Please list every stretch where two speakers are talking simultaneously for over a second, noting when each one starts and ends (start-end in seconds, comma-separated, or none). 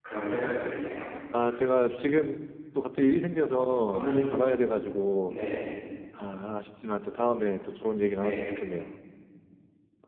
none